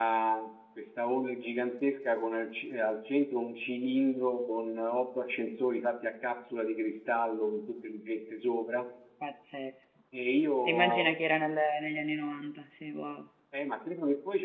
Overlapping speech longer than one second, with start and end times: none

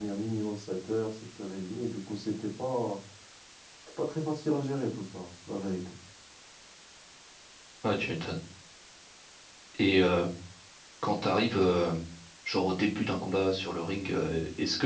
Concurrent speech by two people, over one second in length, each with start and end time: none

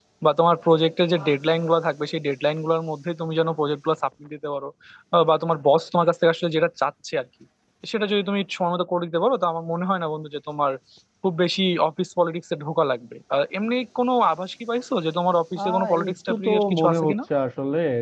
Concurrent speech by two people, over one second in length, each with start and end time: 15.6-17.1

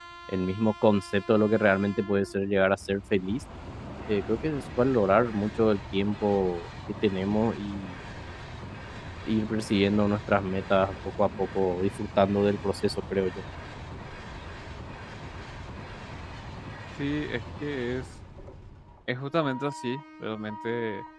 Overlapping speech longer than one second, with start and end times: none

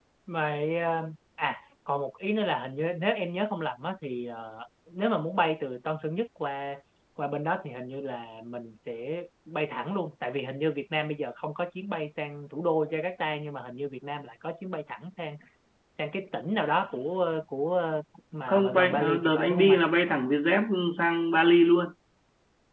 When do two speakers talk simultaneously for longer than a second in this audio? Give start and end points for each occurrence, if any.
18.5-19.8

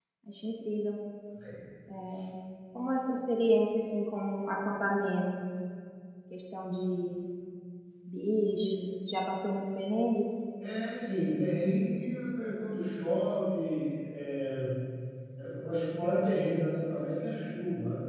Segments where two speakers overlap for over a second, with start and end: none

